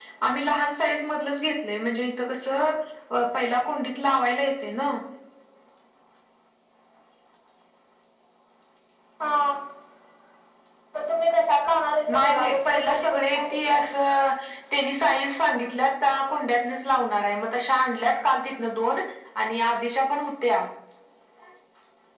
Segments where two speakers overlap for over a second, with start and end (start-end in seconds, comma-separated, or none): 12.1-13.8